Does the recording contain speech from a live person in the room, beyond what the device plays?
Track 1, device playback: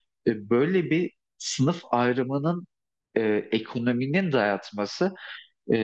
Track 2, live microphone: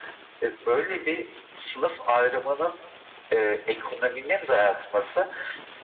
No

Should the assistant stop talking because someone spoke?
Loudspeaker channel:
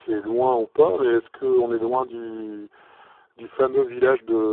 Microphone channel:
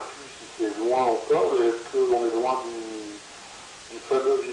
No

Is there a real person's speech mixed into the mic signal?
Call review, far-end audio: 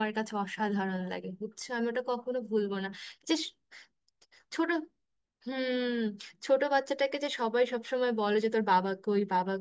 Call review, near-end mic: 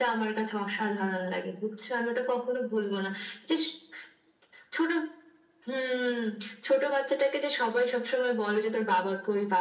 No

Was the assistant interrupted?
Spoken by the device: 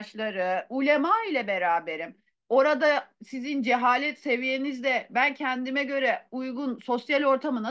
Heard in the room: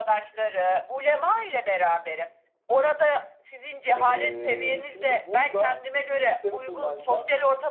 Yes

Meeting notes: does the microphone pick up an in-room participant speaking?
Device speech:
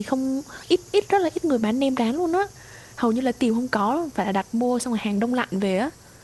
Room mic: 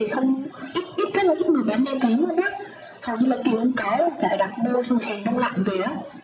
No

